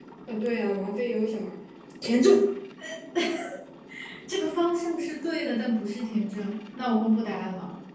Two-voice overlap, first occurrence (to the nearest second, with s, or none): none